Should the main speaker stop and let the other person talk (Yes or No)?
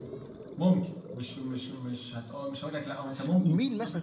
Yes